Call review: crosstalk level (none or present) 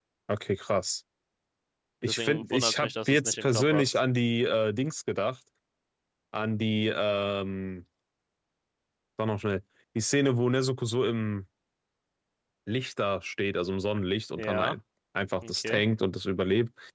present